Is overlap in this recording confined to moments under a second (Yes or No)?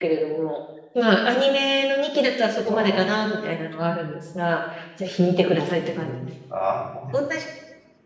Yes